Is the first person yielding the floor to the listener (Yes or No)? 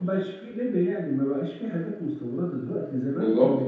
No